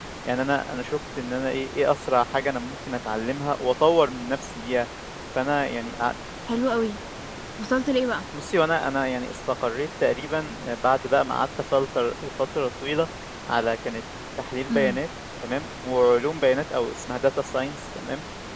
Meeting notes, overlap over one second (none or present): none